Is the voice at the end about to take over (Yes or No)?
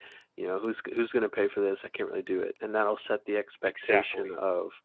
No